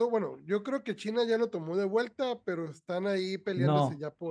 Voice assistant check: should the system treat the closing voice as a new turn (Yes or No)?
Yes